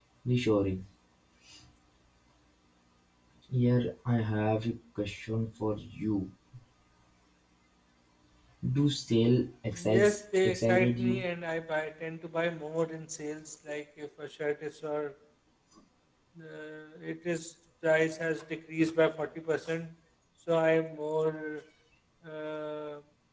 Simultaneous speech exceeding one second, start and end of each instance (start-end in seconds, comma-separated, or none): 9.7-11.2